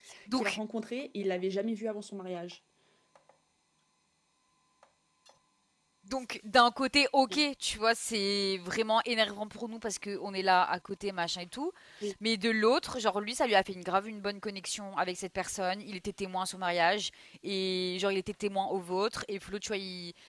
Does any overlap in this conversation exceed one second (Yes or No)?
No